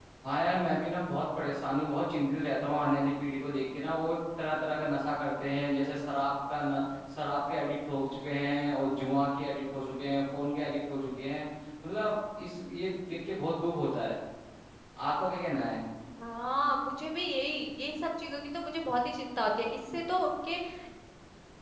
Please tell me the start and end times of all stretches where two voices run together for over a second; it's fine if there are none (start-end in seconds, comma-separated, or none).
none